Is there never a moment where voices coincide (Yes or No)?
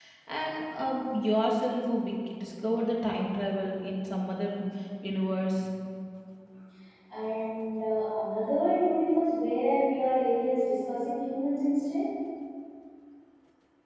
Yes